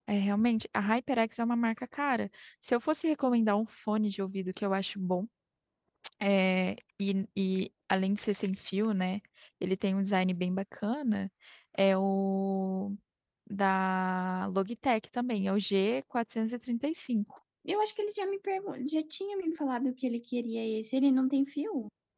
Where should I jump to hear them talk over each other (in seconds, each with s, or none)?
none